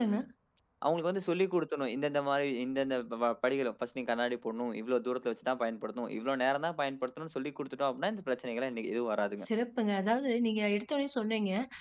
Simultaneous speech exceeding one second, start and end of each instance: none

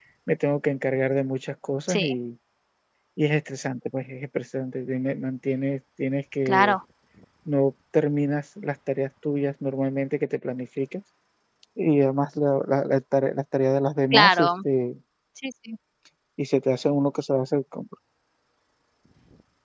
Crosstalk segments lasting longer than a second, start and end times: none

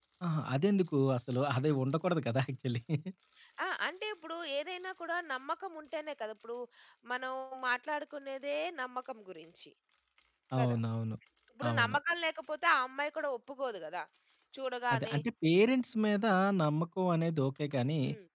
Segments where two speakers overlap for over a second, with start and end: none

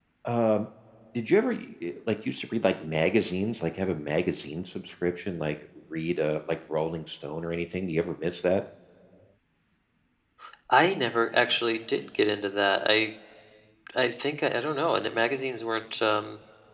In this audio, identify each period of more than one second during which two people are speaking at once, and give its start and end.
none

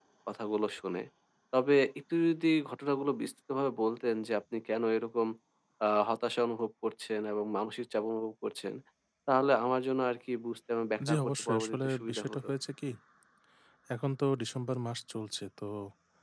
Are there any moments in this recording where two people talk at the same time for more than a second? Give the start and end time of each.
11.1-12.5

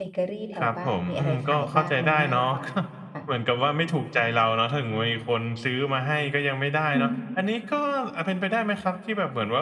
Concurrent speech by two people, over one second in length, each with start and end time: 0.6-2.6

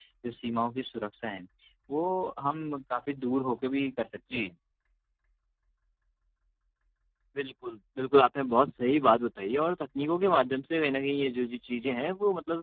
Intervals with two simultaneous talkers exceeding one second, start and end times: none

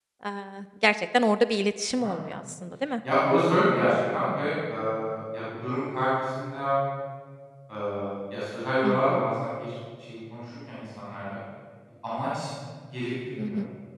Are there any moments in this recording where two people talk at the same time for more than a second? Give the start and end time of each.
none

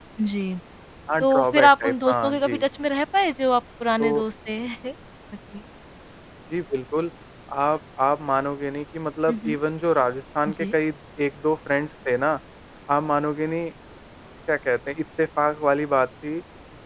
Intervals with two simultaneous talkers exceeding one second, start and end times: 1.2-2.6

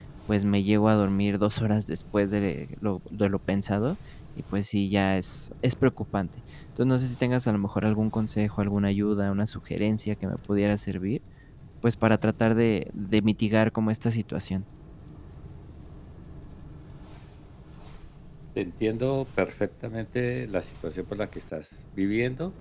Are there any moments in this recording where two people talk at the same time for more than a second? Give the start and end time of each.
none

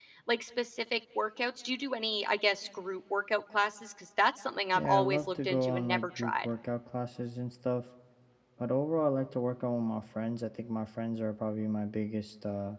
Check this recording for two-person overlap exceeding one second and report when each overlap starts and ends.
4.8-6.5

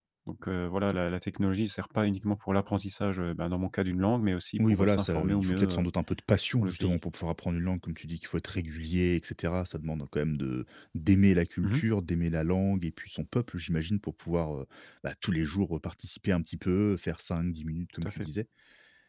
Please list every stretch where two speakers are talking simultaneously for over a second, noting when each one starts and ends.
4.6-5.8

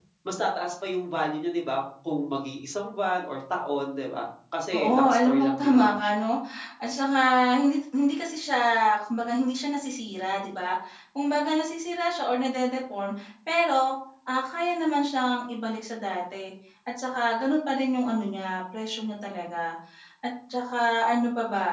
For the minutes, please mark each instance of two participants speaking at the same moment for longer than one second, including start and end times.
4.7-6.1

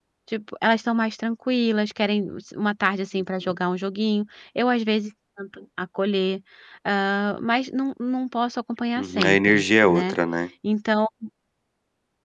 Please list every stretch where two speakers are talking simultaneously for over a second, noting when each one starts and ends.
9.0-10.2

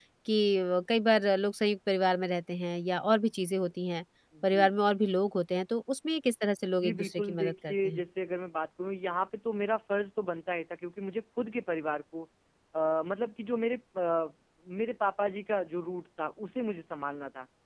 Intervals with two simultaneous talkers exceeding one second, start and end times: 6.8-8.0

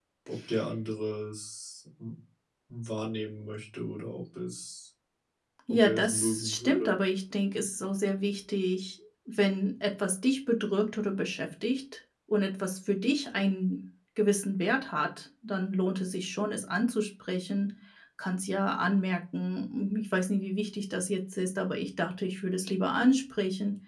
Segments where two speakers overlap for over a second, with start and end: 5.7-6.9

